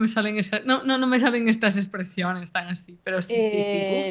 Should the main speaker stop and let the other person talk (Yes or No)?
Yes